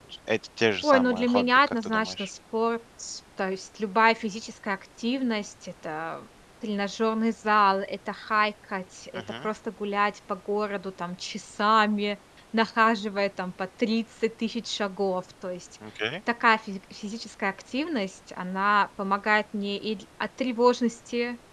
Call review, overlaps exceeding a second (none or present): present